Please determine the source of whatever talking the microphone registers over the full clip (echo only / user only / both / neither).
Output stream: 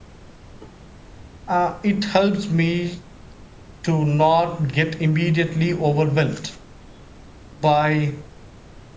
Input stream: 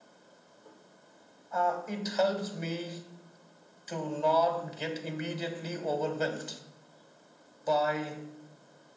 echo only